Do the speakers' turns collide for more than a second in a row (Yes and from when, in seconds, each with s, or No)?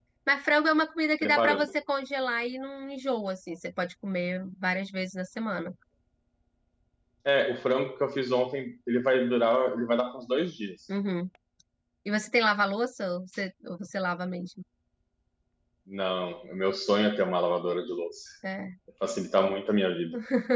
No